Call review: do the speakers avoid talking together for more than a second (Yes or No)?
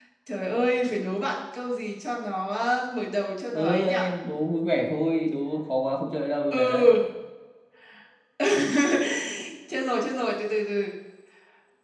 Yes